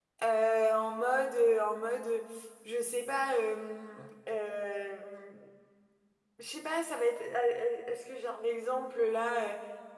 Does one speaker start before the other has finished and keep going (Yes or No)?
No